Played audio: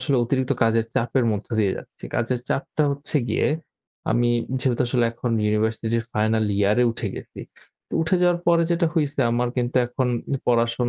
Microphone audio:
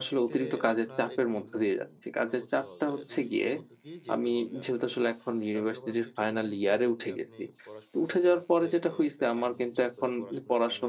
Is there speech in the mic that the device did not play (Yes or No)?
Yes